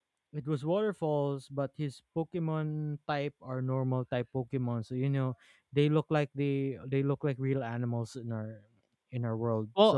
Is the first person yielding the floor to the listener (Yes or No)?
Yes